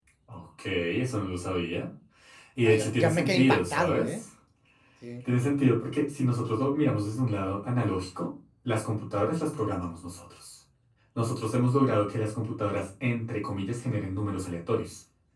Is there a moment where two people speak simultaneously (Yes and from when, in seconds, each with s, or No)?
Yes, from 2.6 s